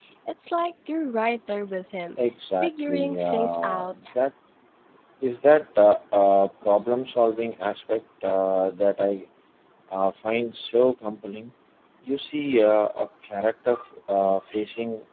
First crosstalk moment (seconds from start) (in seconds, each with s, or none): 2.6 s